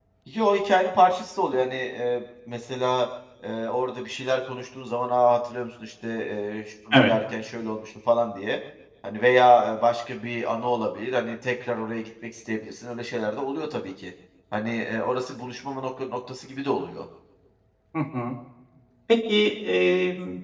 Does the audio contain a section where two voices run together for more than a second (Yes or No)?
No